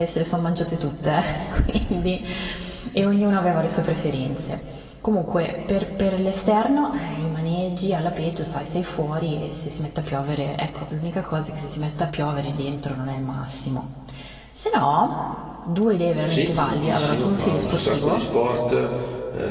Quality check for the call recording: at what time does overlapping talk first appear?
16 s

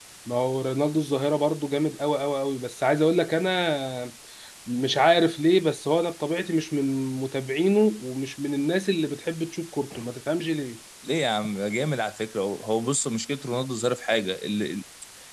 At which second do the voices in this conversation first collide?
none

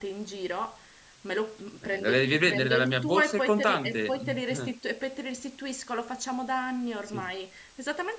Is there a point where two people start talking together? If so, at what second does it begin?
2 s

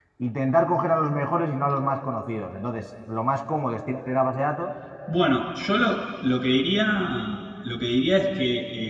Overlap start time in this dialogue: none

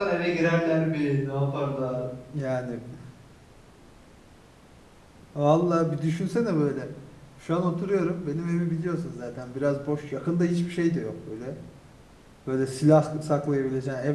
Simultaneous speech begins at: none

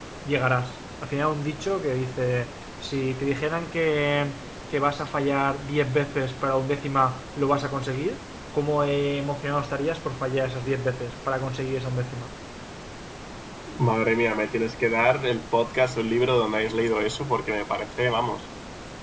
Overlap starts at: none

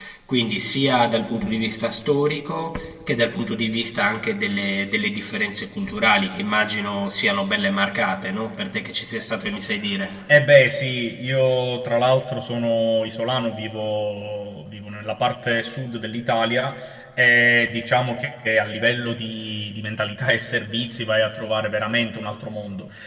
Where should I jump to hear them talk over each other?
none

